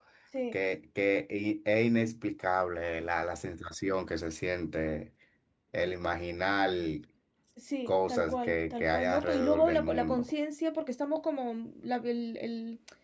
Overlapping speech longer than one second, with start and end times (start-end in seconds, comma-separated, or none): 7.9-10.3